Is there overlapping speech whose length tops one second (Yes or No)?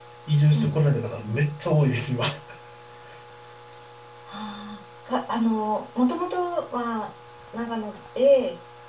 No